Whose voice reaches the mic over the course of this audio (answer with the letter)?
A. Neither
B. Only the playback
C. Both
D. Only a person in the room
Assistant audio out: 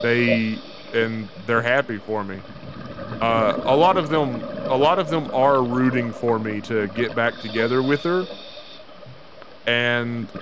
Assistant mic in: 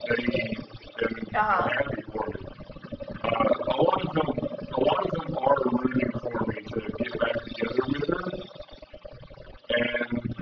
C